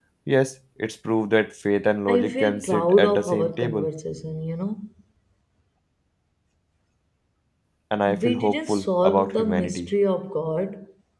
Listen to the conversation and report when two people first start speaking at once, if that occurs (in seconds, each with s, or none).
2.1 s